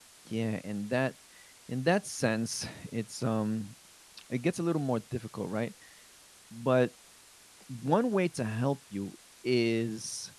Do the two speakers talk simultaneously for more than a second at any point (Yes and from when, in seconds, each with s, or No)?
No